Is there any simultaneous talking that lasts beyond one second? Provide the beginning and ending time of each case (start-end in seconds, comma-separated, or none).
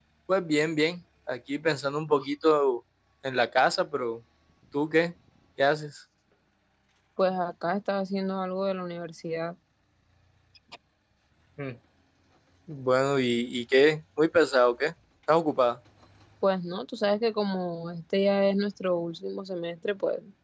none